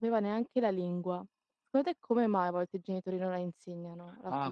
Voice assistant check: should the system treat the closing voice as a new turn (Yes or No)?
Yes